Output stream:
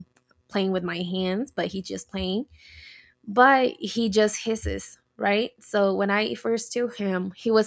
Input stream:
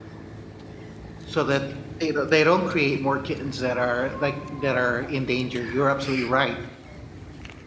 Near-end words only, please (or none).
so that they don't- they don't create more kittens that are like that are in danger. You're absolutely right.